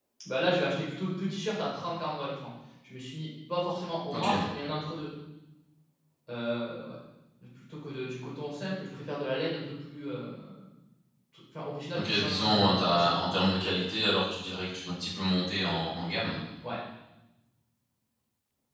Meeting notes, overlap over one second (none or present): present